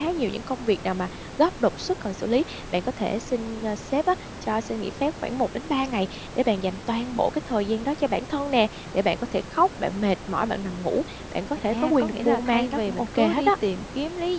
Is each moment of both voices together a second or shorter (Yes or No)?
No